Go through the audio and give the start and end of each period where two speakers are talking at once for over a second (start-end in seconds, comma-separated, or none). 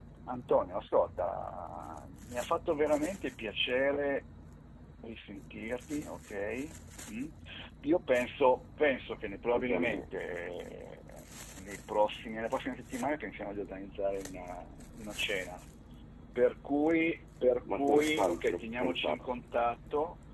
17.7-19.2